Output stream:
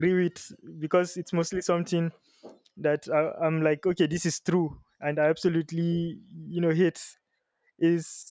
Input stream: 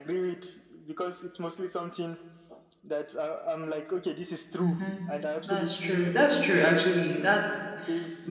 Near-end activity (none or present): present